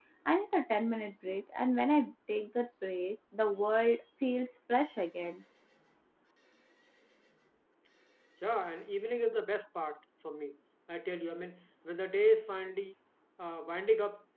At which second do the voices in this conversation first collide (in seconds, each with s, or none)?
none